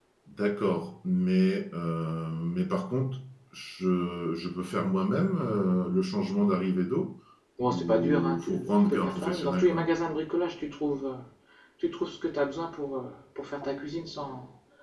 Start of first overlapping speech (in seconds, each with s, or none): 7.7 s